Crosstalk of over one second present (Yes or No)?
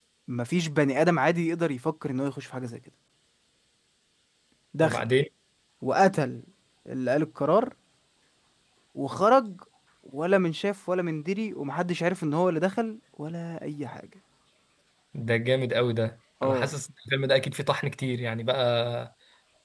No